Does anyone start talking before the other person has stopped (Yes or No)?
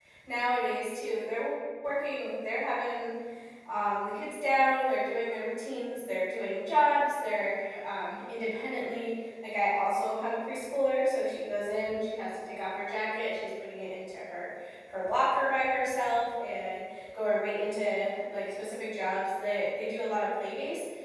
No